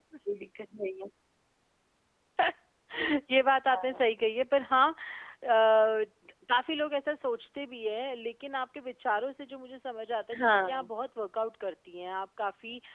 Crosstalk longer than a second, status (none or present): none